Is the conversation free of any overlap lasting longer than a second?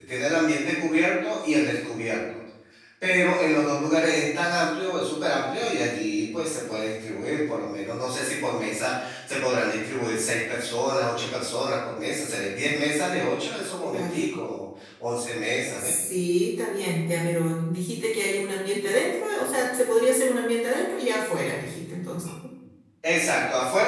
Yes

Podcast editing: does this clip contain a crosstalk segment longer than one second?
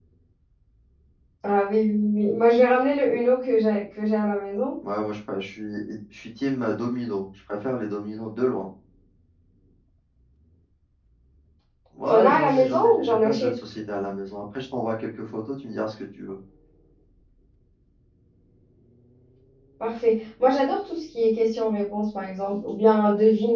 Yes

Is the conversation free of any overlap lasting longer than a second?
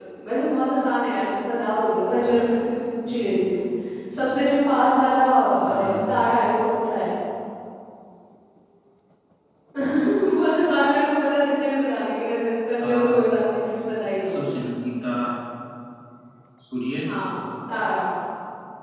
Yes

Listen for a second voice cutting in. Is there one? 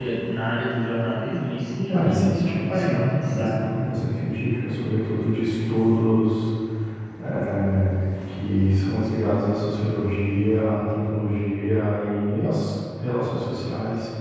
Yes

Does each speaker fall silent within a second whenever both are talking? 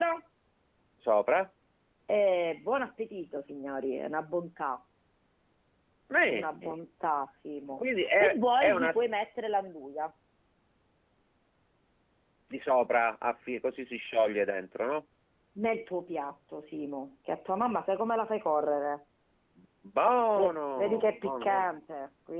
No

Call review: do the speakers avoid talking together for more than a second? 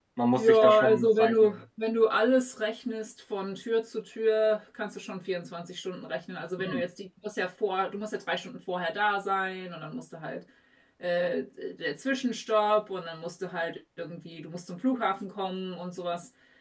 No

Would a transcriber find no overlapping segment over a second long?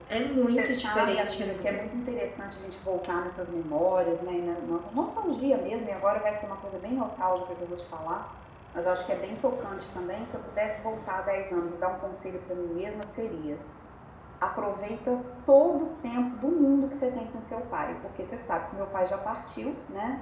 No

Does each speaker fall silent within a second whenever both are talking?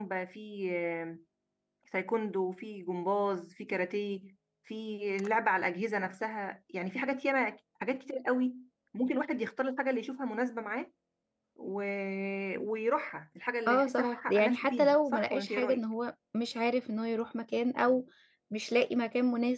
No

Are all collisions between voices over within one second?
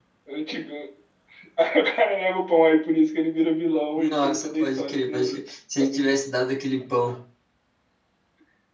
No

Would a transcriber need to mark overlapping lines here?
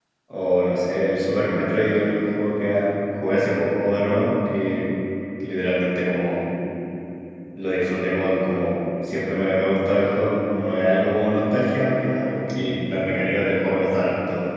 No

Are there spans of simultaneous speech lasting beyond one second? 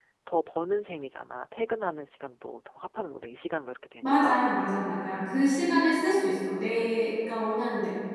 No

